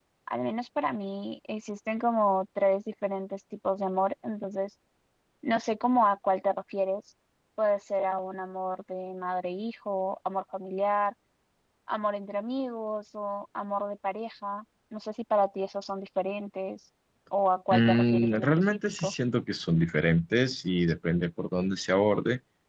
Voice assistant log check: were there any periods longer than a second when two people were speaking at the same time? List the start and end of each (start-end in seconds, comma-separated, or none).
17.7-19.1